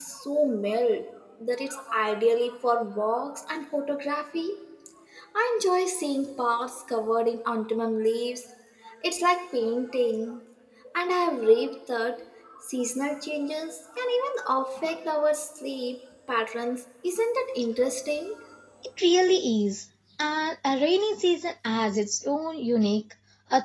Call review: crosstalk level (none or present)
none